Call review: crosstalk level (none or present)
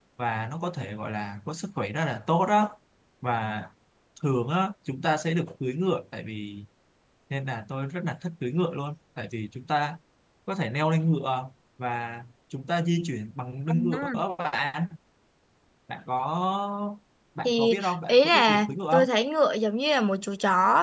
present